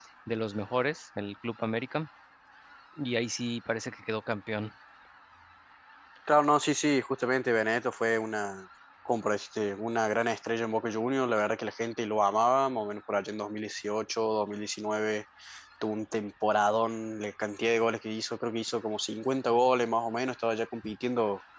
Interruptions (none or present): none